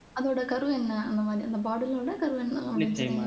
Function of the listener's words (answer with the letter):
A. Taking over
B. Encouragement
A